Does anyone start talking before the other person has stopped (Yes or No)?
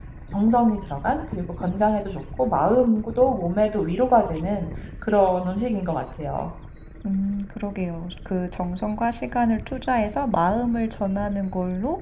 No